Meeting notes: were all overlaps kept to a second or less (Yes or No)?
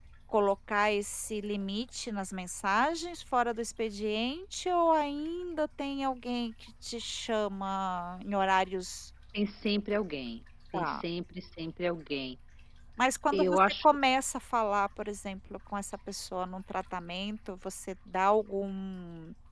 Yes